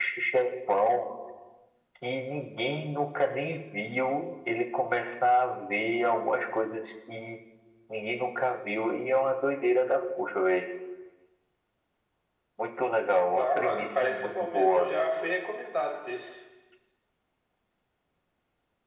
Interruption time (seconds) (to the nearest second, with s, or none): 13 s